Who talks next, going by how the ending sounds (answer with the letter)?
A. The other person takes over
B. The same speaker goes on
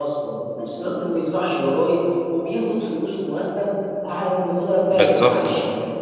B